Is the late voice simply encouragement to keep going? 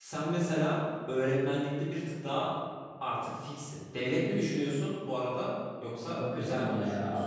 No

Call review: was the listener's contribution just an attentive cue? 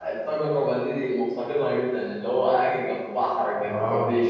No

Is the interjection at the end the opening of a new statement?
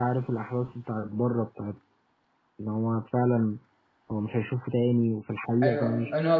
Yes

